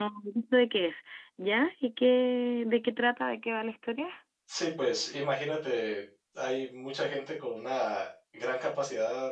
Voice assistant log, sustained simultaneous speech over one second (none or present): none